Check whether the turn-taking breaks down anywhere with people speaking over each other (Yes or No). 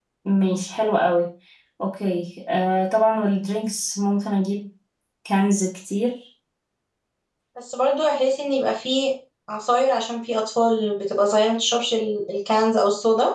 No